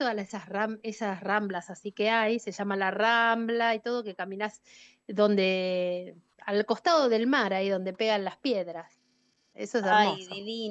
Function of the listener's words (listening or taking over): taking over